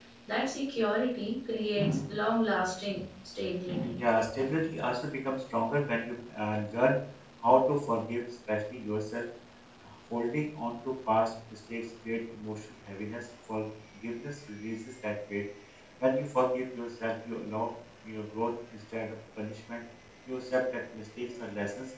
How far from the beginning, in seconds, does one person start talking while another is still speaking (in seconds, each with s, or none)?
none